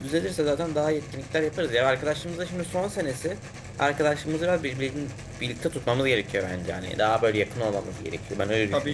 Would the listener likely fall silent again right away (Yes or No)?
No